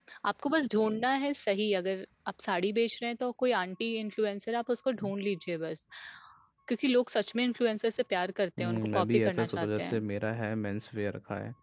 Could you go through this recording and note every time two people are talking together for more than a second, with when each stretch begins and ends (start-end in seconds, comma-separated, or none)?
8.6-10.0